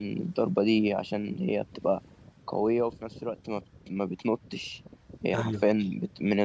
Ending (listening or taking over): listening